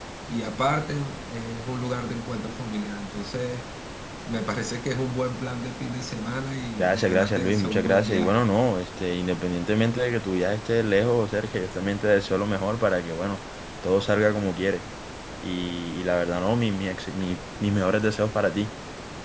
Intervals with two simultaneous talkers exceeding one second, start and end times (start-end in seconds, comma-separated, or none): 6.8-8.5